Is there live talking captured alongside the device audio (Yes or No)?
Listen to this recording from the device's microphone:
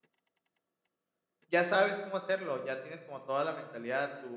Yes